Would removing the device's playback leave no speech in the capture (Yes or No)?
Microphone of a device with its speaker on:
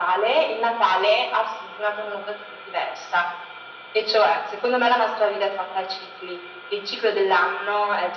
Yes